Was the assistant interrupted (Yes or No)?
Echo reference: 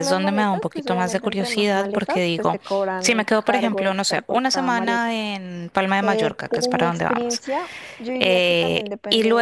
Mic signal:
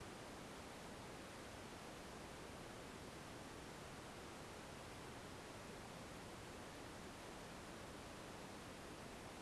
No